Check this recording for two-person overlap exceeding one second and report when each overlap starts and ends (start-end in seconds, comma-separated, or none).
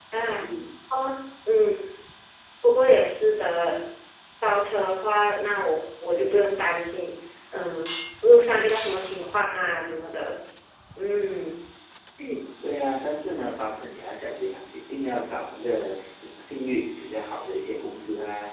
none